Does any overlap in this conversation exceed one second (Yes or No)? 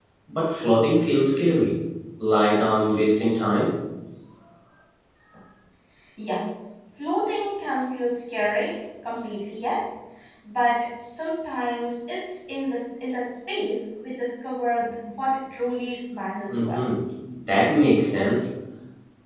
No